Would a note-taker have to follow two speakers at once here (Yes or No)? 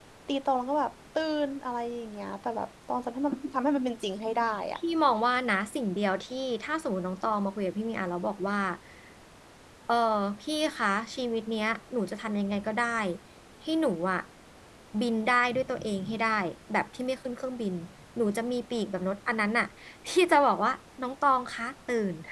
No